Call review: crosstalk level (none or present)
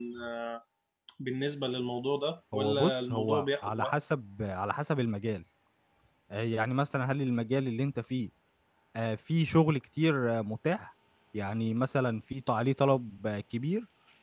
present